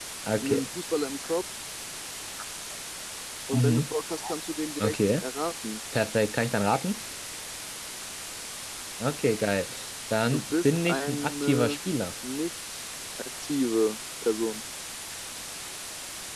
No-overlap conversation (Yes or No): No